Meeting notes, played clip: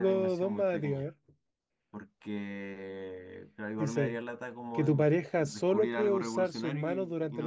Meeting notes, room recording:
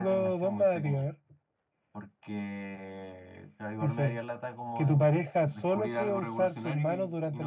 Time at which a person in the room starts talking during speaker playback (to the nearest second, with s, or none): none